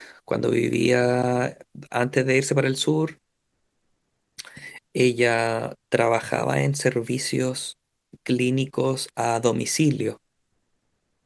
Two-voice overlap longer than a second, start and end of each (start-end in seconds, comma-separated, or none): none